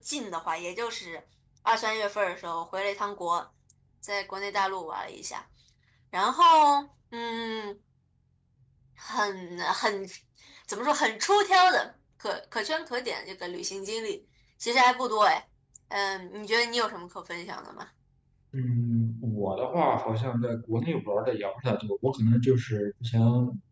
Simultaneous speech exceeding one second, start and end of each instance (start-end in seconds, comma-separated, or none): none